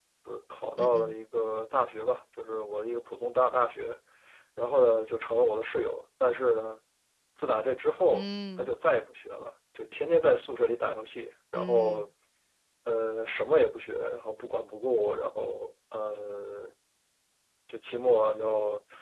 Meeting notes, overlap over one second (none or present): none